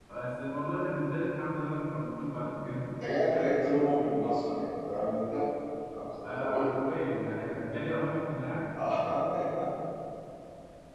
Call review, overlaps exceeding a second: none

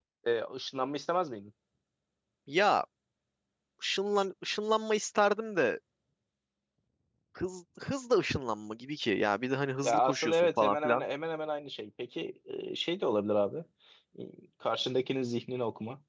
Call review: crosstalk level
present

